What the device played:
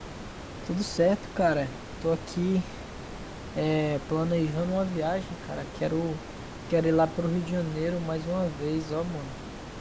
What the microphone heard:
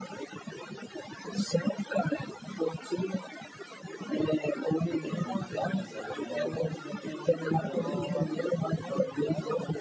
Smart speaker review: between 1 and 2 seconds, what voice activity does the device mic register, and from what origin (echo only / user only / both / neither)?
echo only